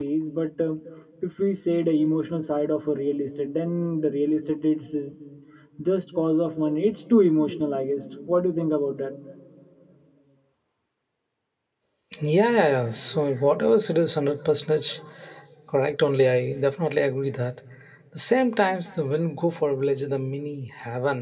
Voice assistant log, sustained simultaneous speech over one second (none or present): none